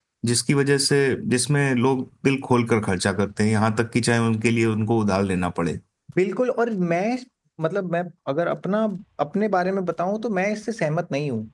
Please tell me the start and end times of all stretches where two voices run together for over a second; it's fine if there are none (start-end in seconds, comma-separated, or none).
none